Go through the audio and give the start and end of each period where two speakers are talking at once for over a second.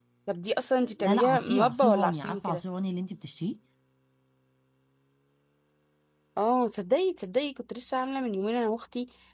1.0-2.6

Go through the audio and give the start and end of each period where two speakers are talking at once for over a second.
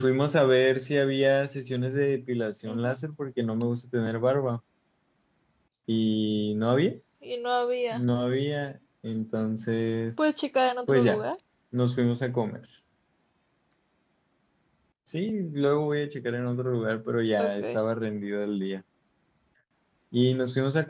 none

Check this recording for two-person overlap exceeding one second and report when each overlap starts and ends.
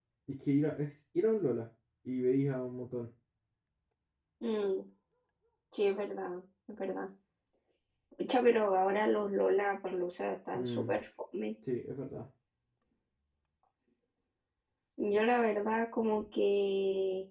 none

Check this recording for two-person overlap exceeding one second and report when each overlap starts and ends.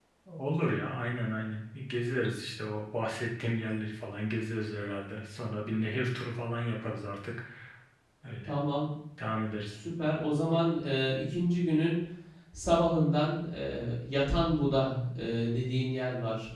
none

